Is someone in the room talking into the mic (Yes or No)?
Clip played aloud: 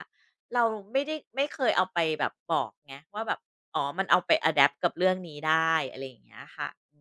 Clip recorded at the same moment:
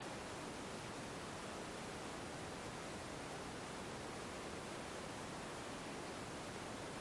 No